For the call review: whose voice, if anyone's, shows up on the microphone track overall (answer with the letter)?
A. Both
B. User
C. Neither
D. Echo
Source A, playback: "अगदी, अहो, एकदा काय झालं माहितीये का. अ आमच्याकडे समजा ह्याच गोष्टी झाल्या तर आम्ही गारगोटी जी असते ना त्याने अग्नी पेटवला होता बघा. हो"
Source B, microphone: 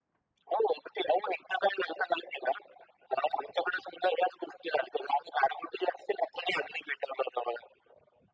D